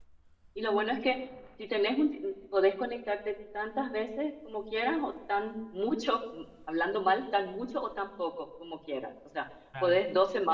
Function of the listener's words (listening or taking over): listening